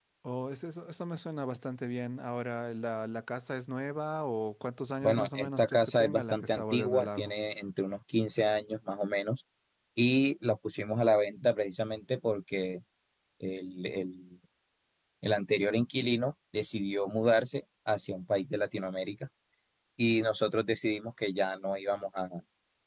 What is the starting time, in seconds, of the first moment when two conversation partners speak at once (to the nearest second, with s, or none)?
5 s